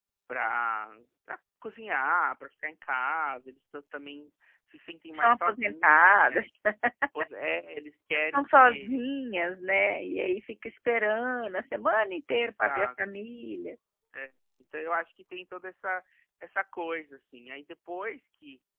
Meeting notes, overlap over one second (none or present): present